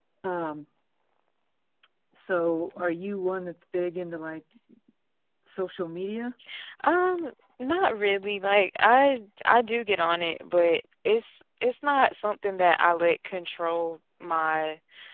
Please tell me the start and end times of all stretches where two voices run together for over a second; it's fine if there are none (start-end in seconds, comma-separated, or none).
none